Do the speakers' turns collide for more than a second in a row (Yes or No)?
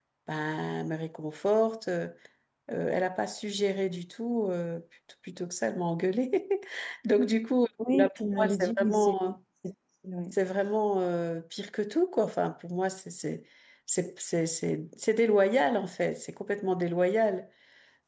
Yes